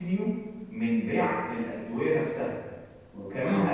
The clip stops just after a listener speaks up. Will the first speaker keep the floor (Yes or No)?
Yes